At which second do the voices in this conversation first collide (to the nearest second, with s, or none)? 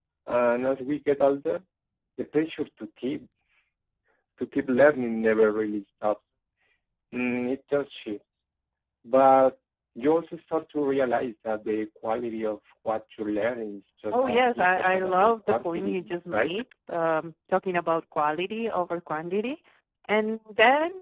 14 s